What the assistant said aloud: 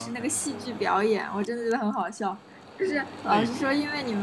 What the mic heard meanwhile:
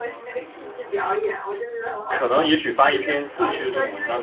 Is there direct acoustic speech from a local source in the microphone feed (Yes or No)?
Yes